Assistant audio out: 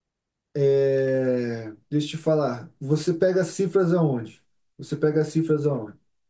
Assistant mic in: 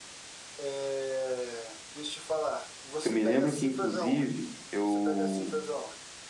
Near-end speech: present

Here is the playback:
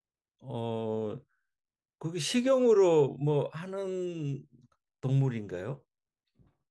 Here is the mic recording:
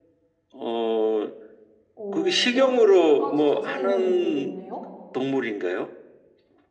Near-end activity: present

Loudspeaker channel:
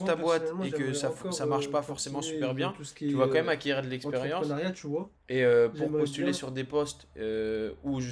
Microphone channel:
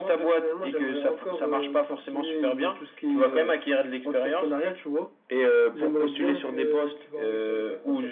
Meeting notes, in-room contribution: present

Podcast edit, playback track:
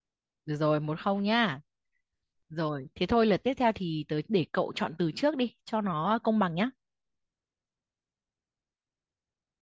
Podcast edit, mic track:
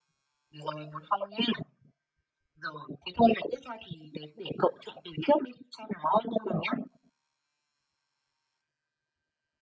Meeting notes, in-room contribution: none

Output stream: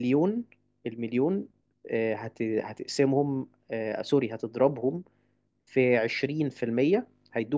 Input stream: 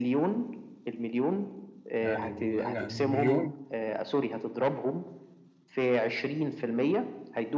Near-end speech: present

